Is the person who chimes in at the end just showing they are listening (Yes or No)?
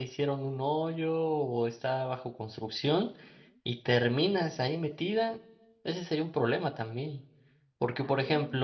Yes